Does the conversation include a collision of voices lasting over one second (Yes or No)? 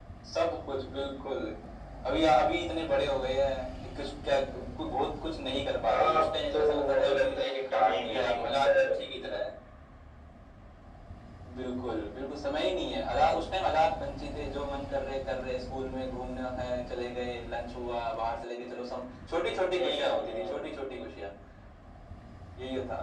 Yes